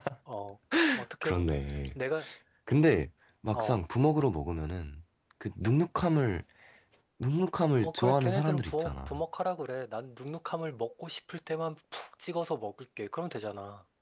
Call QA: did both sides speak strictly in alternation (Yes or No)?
No